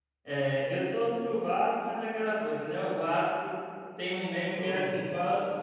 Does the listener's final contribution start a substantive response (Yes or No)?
No